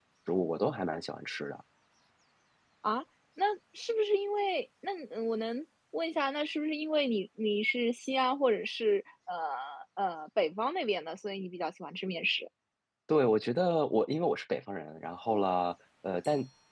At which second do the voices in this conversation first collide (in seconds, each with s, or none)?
none